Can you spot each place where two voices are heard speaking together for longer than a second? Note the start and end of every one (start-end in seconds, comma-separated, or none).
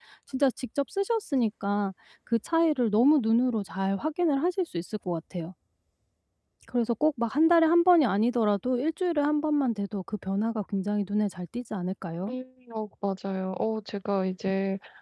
none